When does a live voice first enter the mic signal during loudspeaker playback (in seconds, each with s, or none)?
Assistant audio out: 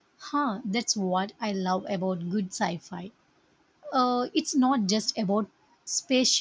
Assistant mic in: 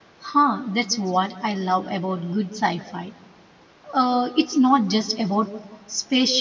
none